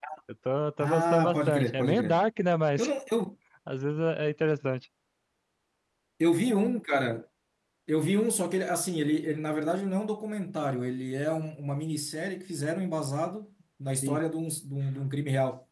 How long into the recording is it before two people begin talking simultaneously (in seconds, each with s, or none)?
0.8 s